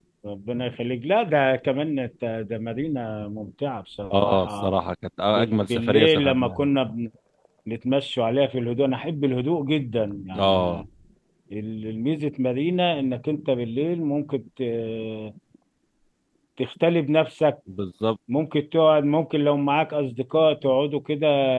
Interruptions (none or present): present